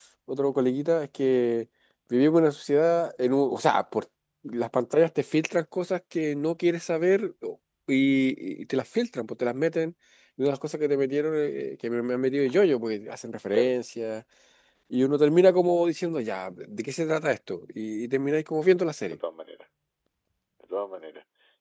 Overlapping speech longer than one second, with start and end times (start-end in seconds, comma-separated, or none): none